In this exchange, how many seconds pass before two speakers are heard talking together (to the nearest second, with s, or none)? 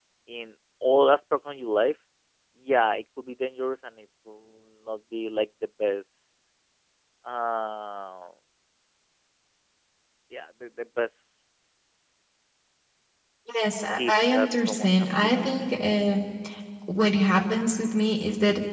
14 s